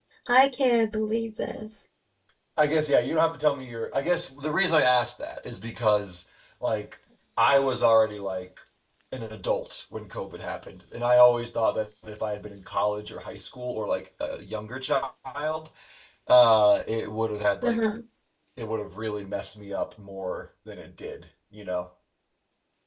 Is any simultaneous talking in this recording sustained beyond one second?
No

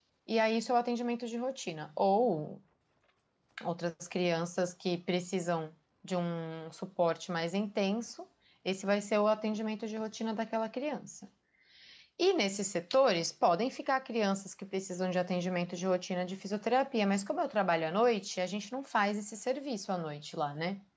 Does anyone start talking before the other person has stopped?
No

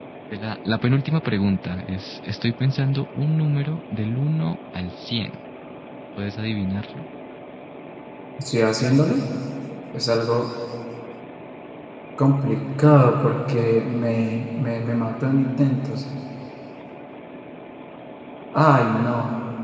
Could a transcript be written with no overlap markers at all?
Yes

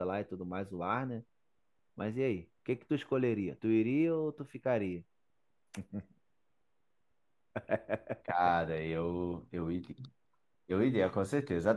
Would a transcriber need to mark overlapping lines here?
No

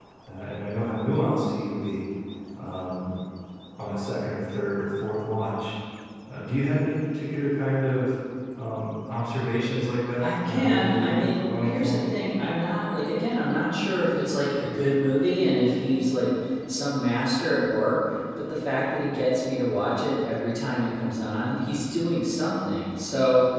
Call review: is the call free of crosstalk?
No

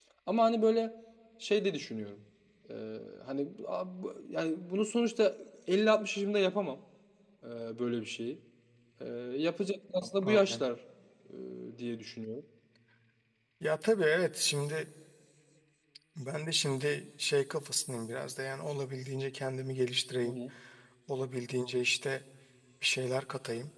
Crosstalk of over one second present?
No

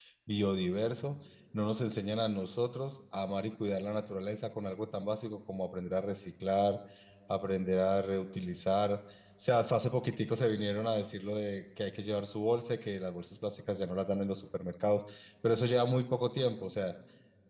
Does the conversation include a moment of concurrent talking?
No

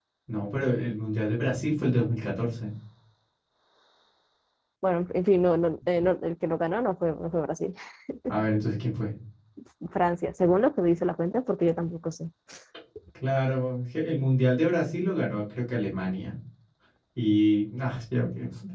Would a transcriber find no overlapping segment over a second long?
Yes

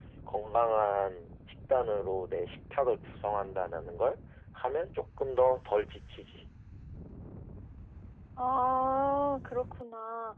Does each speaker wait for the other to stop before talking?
Yes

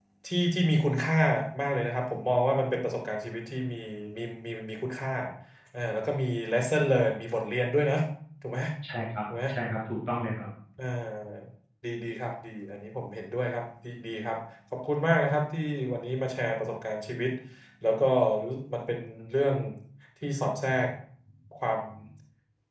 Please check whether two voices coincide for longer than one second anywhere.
No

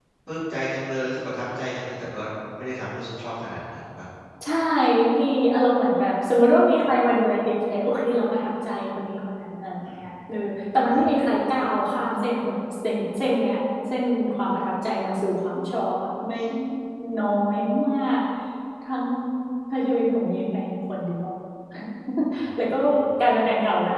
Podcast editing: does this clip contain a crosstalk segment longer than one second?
No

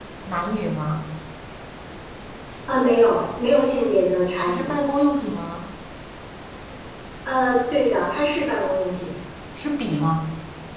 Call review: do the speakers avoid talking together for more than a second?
Yes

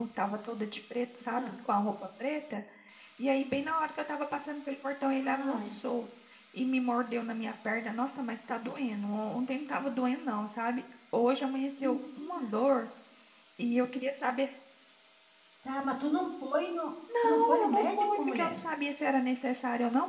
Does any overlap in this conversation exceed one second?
Yes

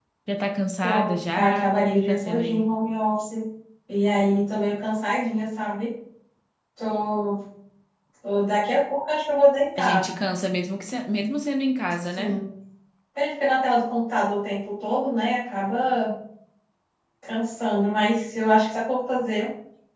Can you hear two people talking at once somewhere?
Yes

